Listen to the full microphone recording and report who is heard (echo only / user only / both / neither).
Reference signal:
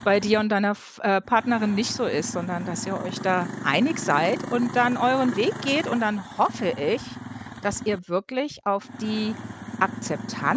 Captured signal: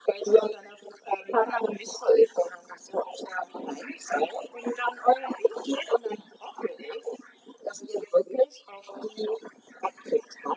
echo only